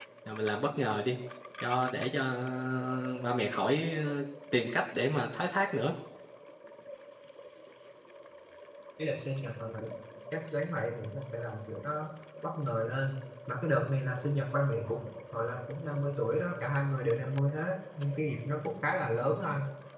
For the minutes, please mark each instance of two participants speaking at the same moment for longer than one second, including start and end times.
none

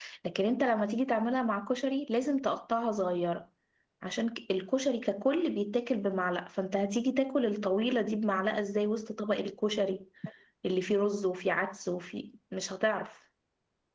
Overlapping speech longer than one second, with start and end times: none

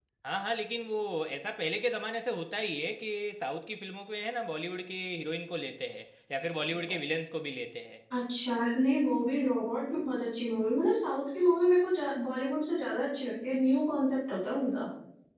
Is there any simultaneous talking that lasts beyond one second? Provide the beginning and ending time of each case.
none

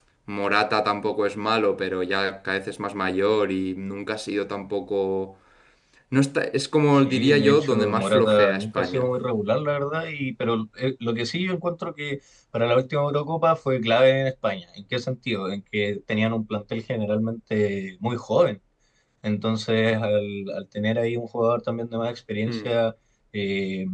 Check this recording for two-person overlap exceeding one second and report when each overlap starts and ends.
7.0-9.1

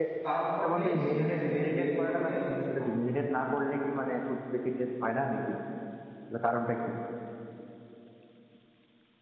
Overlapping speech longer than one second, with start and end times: 0.6-2.3

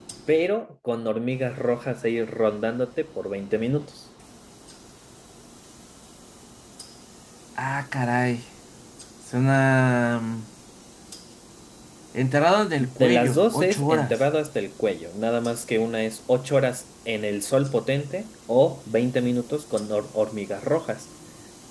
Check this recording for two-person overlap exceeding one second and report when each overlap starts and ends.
12.8-14.2

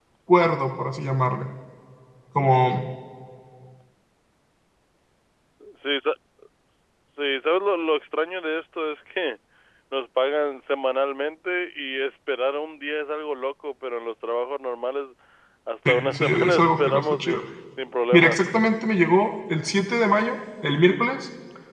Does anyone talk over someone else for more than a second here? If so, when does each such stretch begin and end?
15.9-17.4

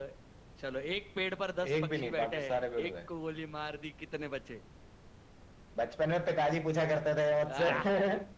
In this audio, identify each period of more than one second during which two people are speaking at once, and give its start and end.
1.7-2.9

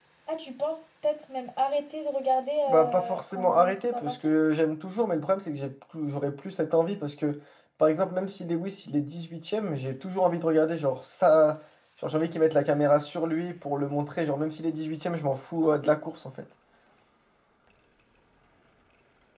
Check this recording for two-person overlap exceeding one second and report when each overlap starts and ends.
2.7-4.3

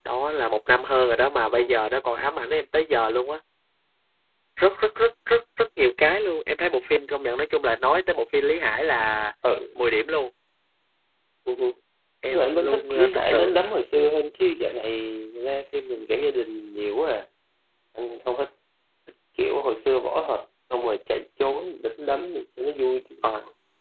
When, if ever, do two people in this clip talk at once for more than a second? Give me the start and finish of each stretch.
12.3-13.6

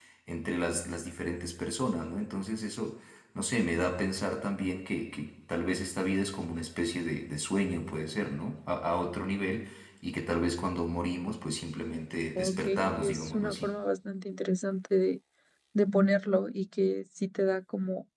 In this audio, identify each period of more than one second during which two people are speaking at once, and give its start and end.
12.4-13.7

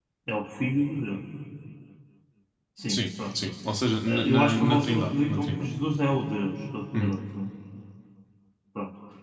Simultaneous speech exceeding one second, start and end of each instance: 4.1-5.7

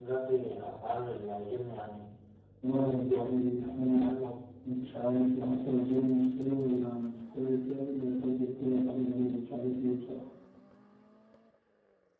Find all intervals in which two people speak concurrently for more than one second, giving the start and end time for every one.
2.7-4.1

